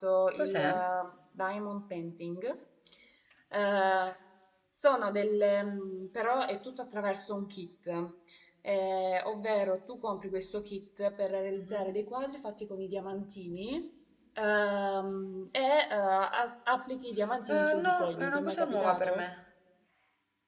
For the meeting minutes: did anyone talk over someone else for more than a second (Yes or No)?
Yes